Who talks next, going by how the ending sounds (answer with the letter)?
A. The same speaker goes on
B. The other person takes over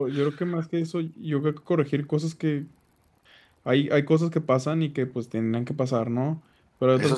A